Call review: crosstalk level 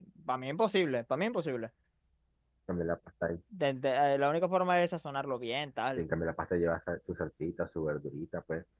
none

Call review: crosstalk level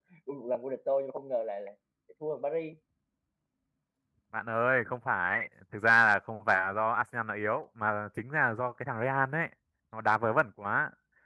none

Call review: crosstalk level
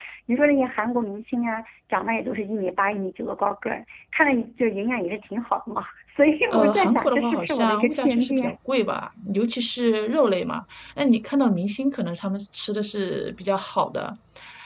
present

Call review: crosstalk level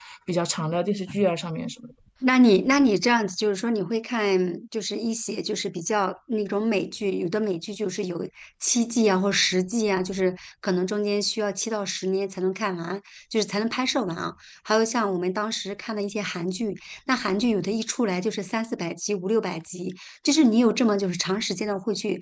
none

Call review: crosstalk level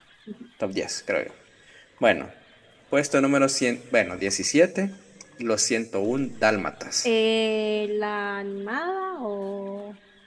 none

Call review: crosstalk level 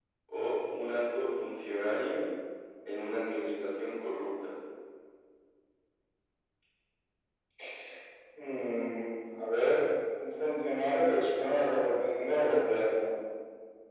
none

